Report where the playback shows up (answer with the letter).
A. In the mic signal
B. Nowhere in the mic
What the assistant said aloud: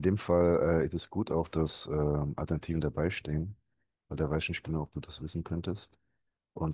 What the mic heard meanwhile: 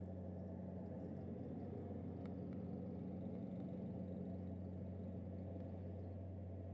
B